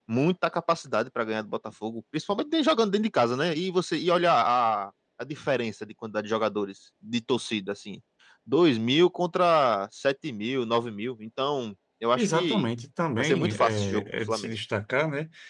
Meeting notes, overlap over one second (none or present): present